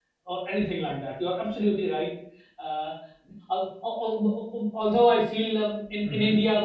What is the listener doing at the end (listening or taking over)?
listening